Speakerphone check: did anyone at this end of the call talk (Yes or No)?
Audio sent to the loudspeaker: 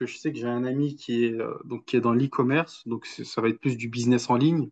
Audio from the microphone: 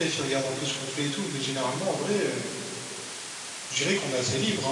Yes